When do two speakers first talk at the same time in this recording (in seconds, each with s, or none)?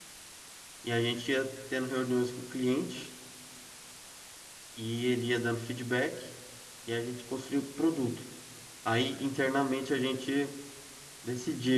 none